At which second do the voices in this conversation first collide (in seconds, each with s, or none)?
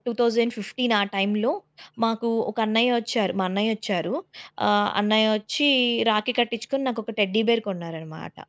none